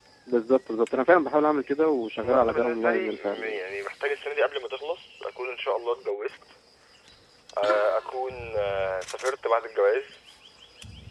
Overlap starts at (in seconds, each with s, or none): 2.2 s